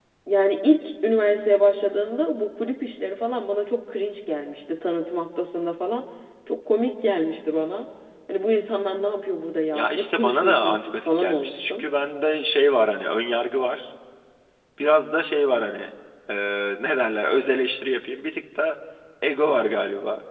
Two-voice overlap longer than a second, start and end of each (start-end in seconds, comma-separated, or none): 9.7-11.8